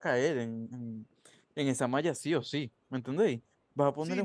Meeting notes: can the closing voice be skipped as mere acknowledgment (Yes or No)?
No